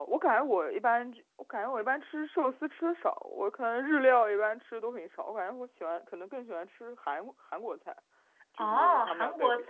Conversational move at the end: taking over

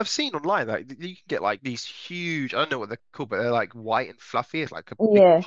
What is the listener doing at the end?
listening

